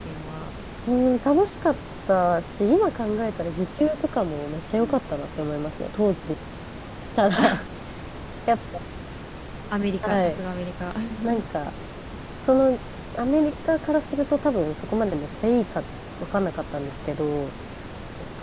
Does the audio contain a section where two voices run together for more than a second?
No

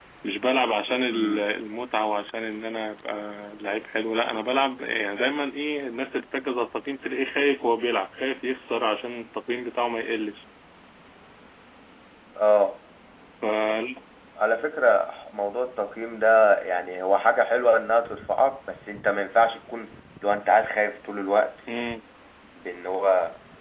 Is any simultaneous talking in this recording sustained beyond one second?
No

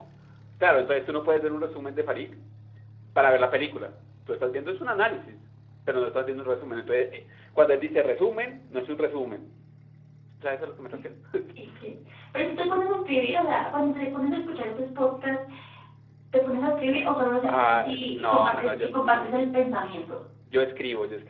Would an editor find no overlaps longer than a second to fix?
No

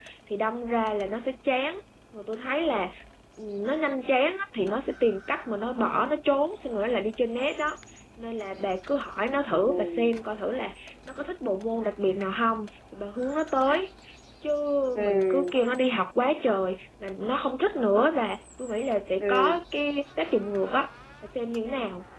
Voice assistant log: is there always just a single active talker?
No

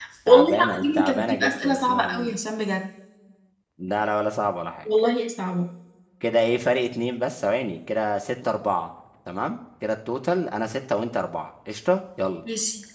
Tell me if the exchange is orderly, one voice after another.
No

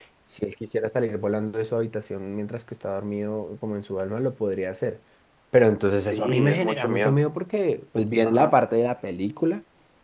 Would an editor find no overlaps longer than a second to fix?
No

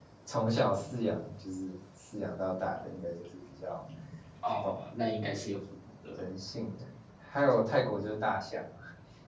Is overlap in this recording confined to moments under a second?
Yes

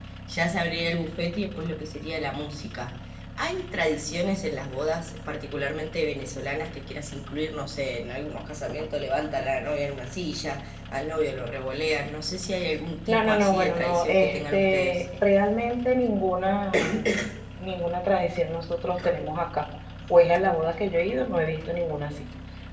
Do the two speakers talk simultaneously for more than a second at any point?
Yes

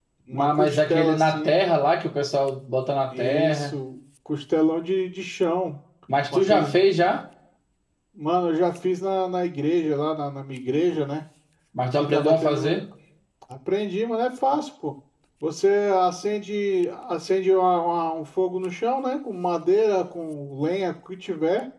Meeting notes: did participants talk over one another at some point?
Yes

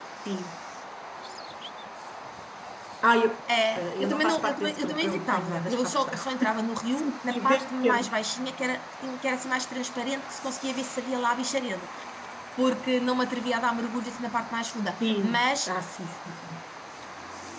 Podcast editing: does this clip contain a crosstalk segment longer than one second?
Yes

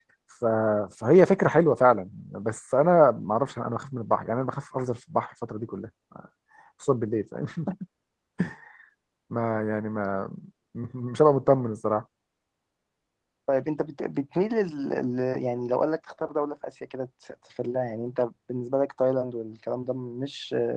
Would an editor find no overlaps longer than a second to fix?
Yes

